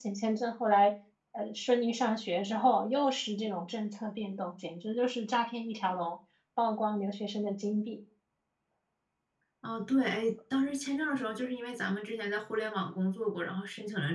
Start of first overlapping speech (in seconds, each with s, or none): none